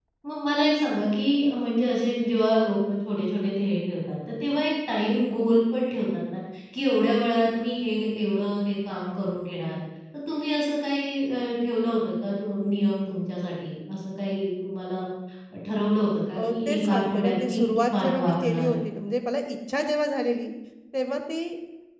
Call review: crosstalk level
present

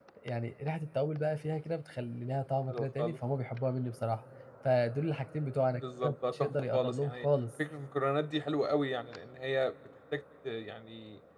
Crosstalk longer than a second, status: present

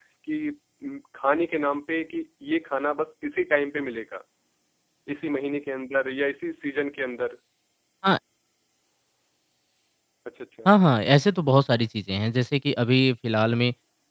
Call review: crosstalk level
none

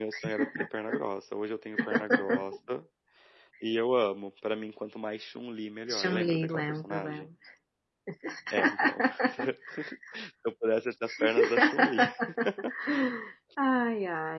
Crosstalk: present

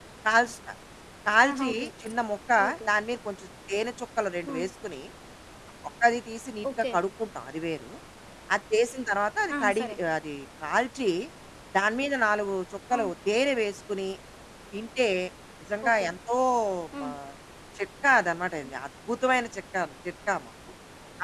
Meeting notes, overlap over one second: none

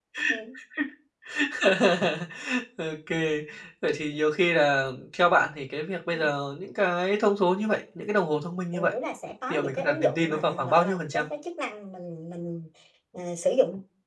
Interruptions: present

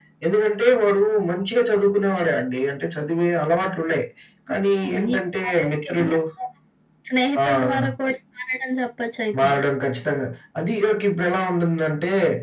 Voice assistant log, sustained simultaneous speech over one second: present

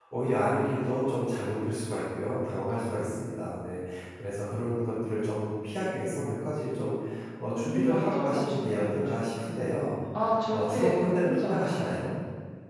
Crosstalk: present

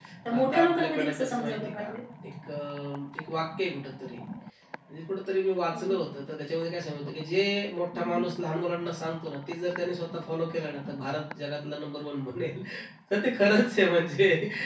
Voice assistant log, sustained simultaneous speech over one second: present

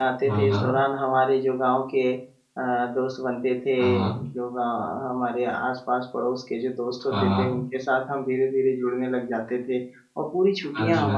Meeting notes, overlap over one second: none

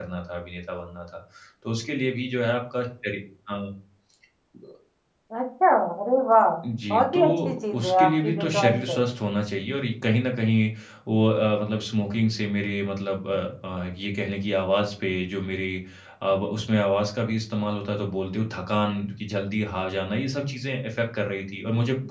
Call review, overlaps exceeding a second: present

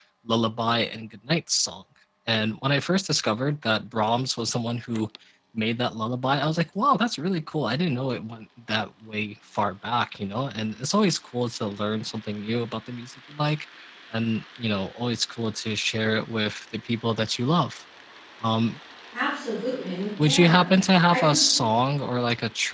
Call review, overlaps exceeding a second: none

